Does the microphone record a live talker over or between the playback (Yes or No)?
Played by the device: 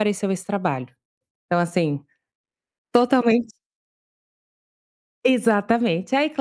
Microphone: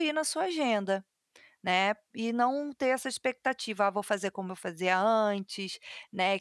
Yes